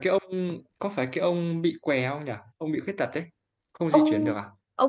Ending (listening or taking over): taking over